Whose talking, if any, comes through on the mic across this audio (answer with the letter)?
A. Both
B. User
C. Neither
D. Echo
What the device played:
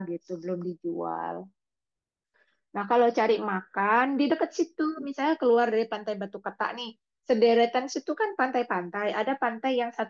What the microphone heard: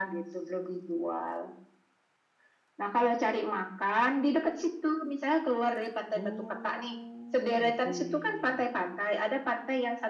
A